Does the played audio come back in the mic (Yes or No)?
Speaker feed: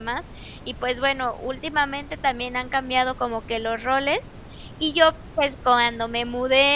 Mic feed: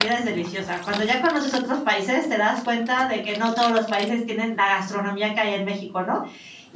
No